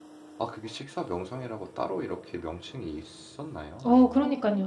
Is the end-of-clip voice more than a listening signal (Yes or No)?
Yes